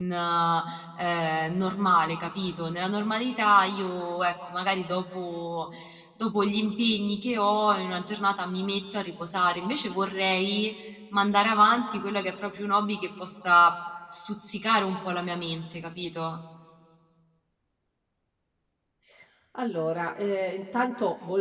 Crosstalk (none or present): none